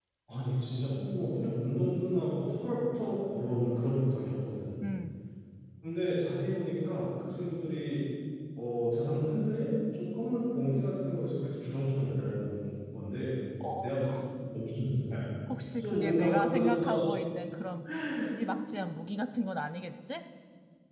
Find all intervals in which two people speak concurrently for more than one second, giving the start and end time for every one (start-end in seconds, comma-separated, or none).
15.8-17.0